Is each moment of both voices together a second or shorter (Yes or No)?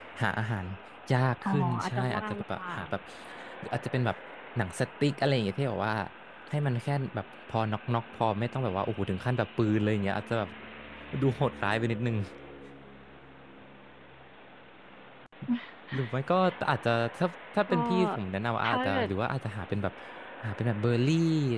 No